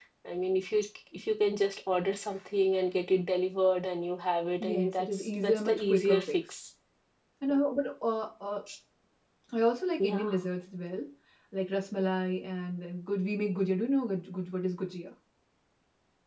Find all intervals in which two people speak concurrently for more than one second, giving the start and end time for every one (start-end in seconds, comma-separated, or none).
4.6-6.4